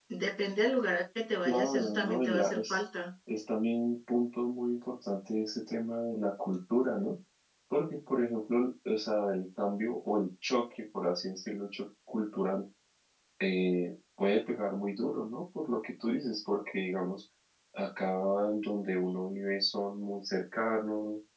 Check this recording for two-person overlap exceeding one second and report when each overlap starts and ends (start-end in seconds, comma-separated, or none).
1.4-2.8